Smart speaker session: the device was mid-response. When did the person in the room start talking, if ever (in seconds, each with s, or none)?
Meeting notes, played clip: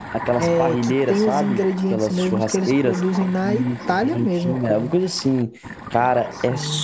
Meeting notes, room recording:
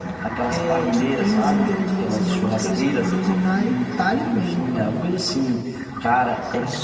none